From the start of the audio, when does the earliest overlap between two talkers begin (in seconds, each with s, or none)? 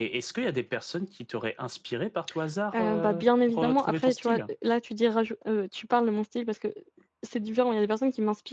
2.7 s